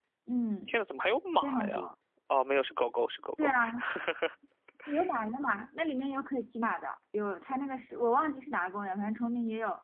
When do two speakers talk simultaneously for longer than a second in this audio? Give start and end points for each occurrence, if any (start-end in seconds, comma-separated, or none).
none